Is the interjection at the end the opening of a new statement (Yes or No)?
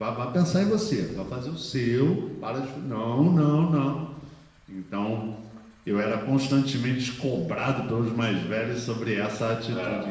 No